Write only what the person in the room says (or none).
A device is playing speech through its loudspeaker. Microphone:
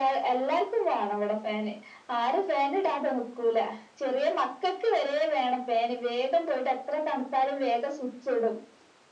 none